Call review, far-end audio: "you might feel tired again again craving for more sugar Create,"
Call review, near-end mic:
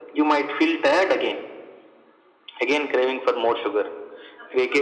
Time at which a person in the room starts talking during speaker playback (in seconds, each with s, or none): none